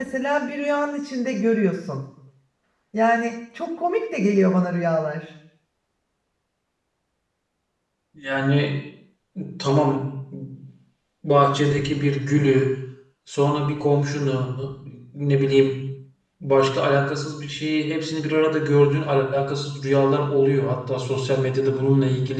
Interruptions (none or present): none